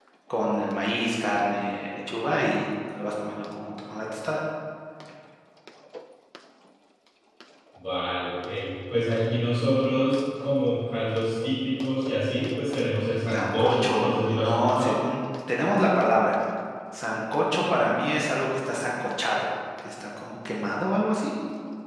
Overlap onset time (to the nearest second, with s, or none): 13 s